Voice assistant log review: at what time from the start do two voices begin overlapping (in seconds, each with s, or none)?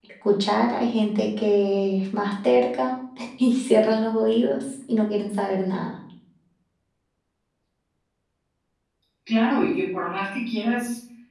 none